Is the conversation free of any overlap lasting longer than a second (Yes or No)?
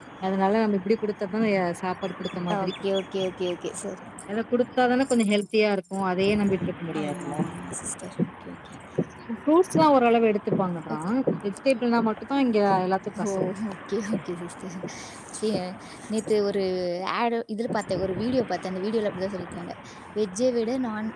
Yes